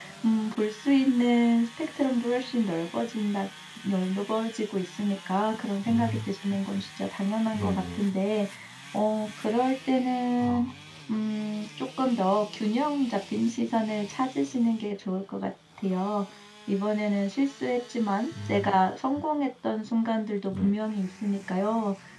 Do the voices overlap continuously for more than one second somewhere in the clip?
No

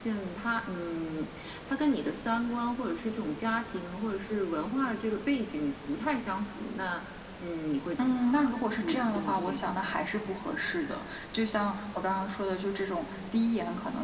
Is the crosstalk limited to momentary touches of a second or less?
No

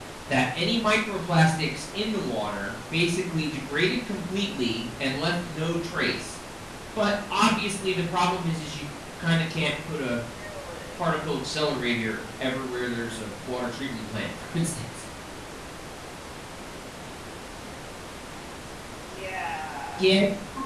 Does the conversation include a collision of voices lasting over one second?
No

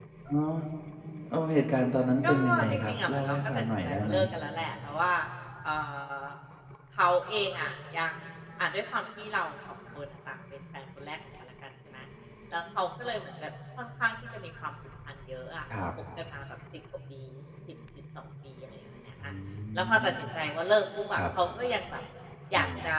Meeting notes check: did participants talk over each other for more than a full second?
Yes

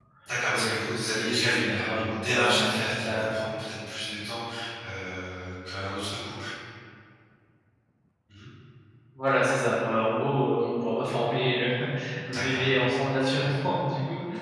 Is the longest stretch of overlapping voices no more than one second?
No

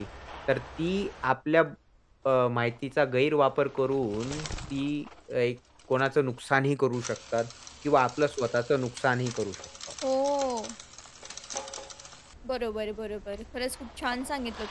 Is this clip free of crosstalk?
Yes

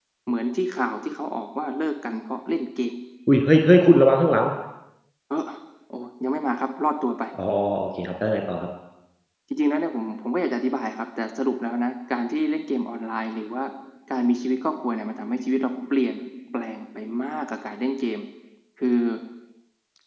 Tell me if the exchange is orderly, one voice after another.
Yes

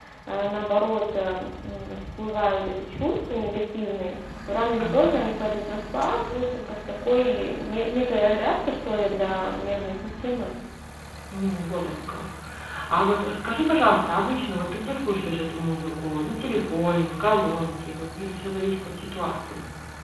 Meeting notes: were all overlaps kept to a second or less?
Yes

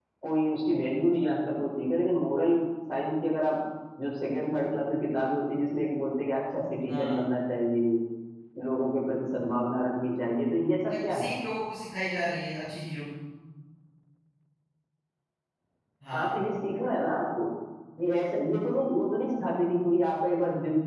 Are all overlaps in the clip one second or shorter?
Yes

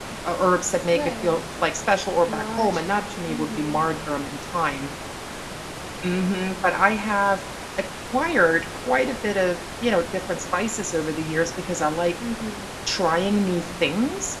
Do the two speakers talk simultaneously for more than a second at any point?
Yes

